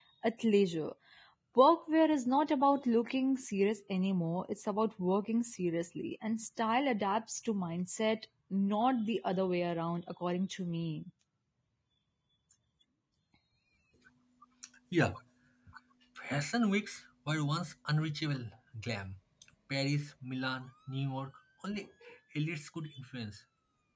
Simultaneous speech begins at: none

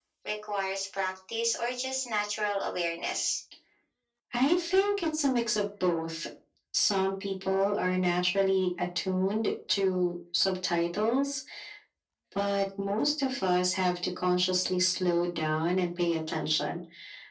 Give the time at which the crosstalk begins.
none

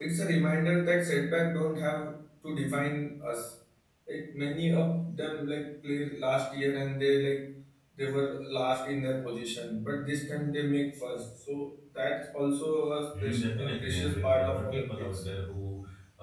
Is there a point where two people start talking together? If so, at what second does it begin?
13 s

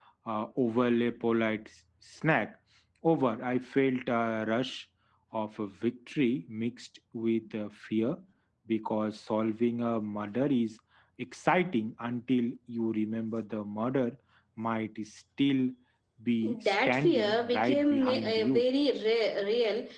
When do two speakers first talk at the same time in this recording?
17 s

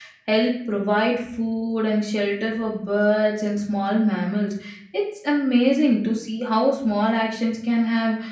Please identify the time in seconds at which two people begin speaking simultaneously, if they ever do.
none

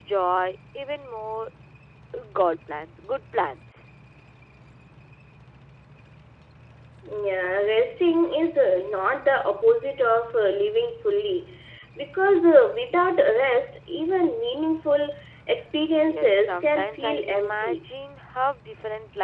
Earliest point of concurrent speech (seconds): 16 s

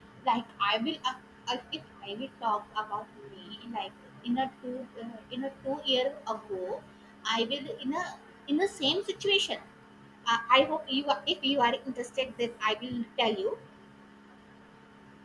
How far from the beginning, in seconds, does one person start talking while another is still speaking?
none

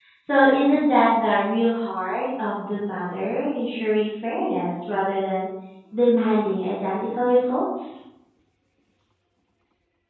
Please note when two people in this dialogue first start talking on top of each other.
none

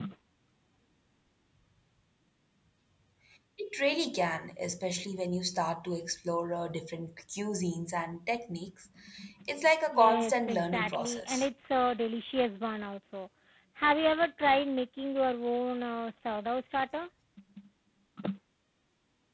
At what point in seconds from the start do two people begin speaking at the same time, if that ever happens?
10 s

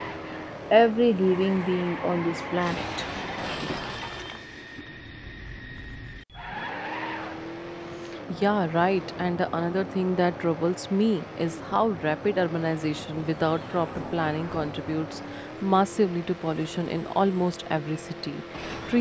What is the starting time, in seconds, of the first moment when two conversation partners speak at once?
none

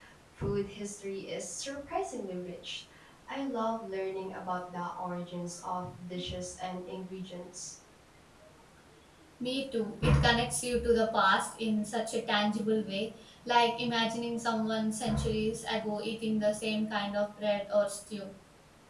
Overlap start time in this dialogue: none

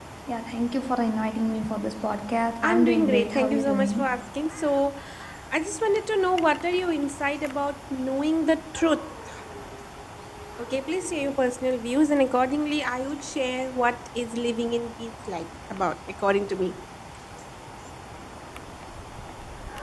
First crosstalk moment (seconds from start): 3 s

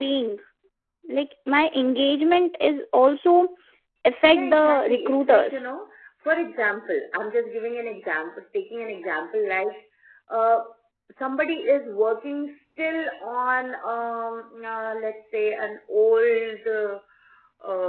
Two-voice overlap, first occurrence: 4 s

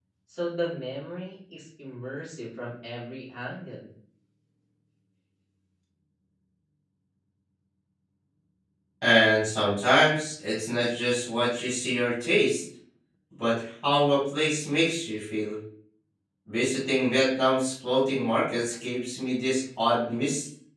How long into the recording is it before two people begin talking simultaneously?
none

